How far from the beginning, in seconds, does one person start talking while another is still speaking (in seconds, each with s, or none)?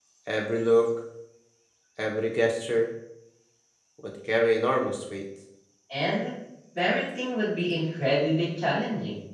none